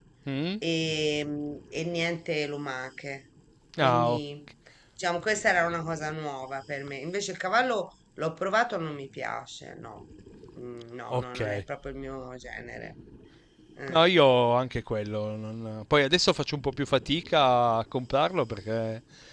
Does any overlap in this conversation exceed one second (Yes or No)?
No